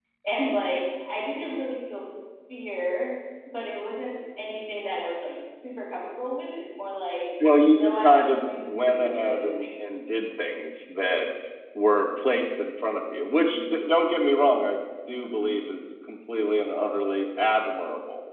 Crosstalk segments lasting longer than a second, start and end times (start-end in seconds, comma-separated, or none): 7.7-9.7